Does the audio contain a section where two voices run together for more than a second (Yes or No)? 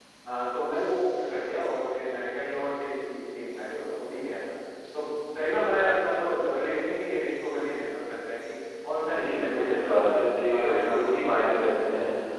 Yes